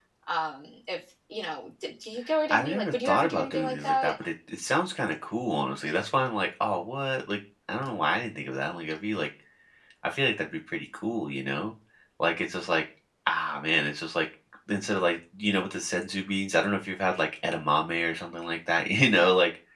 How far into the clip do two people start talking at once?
2.5 s

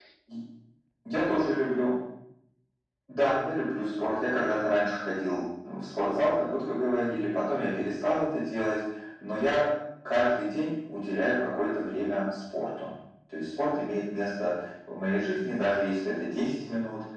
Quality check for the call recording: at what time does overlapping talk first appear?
none

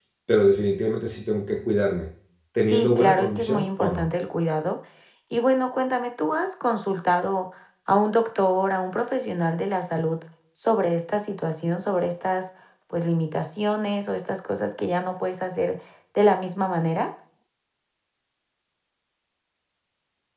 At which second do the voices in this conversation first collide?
2.7 s

